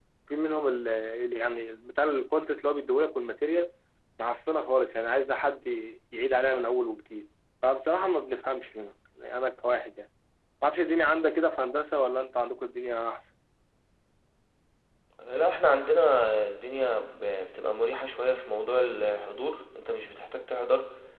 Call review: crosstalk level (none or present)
none